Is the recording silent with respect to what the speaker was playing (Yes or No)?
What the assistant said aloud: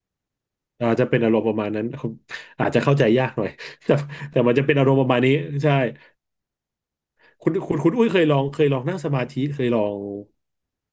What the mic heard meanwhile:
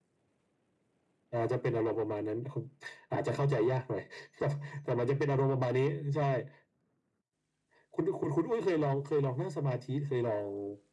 No